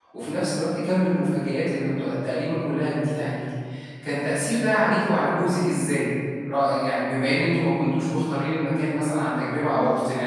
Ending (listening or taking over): taking over